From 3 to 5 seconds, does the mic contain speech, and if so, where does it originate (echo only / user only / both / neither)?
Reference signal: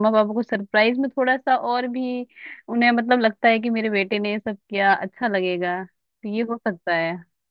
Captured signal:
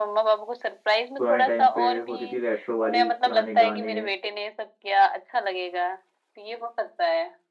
both